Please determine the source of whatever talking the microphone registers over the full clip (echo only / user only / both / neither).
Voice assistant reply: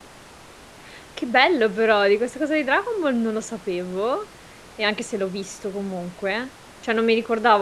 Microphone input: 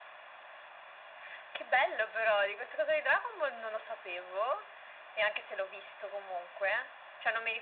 echo only